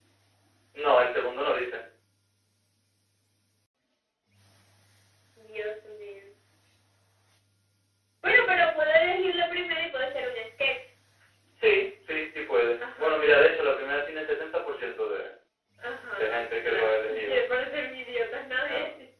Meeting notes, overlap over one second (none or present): present